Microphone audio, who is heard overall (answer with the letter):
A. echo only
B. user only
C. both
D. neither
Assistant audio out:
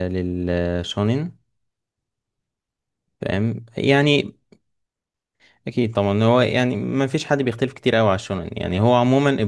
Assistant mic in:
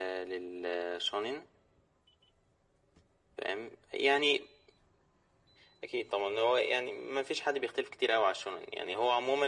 A